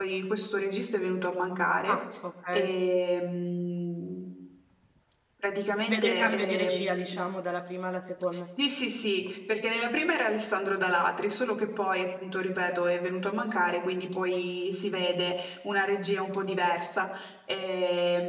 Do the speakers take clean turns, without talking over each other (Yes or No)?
No